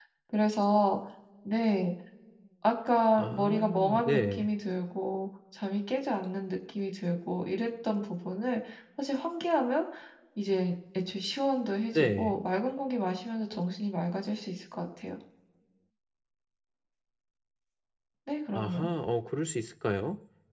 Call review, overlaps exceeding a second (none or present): present